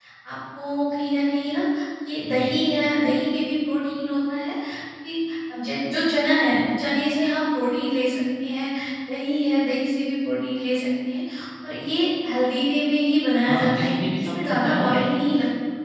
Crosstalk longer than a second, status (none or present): present